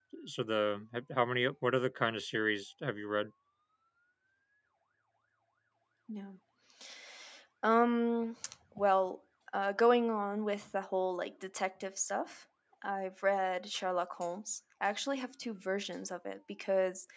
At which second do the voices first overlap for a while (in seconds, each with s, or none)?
none